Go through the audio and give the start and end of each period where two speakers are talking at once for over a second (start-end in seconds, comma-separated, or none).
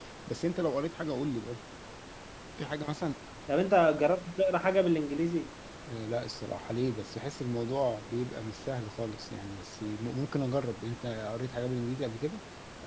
none